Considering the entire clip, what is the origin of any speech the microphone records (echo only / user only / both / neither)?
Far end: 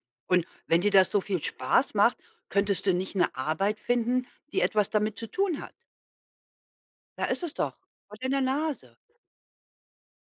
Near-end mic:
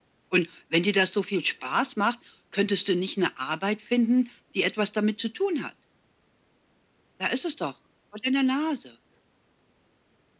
echo only